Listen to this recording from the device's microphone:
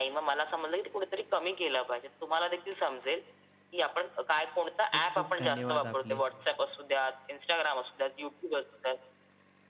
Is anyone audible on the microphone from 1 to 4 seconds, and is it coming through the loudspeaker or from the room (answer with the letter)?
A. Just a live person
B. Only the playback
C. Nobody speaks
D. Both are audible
B